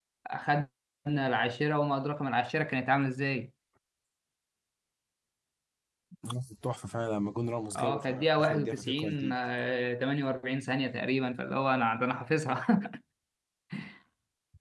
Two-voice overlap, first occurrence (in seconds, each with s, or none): 7.8 s